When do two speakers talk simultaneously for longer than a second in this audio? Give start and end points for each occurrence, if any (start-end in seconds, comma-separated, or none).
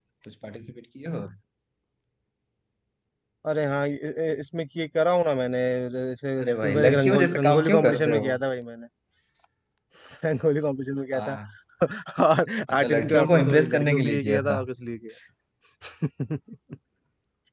6.4-8.3, 12.7-14.6